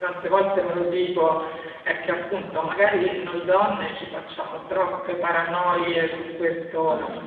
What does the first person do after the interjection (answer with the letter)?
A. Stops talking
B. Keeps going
B